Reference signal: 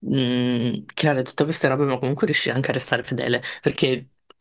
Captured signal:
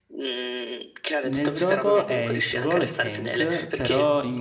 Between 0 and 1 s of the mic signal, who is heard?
echo only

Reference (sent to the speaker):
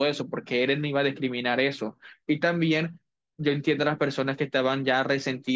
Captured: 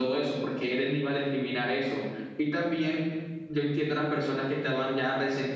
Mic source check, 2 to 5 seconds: echo only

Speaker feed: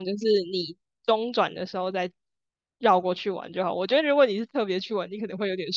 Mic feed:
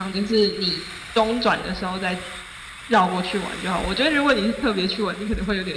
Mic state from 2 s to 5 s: echo only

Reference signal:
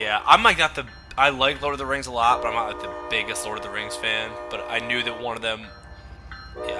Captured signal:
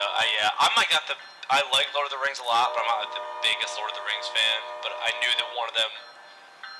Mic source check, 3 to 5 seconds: echo only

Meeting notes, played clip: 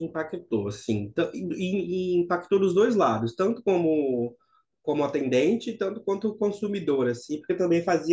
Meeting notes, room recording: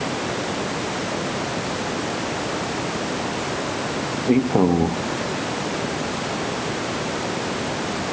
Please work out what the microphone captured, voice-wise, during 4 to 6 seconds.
user only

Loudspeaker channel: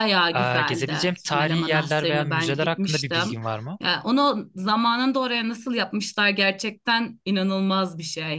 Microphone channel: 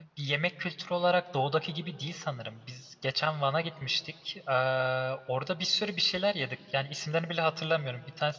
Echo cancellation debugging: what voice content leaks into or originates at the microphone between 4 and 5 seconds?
user only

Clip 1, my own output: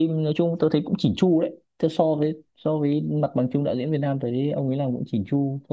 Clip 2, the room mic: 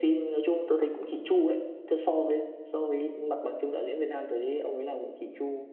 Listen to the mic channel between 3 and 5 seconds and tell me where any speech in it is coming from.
echo only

